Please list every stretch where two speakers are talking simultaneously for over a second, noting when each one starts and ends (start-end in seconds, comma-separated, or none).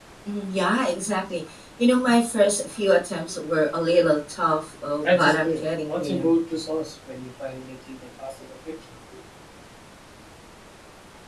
5.0-6.3